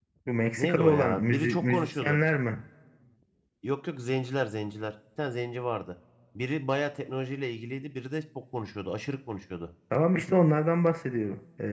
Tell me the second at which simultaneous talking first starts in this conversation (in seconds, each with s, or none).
0.6 s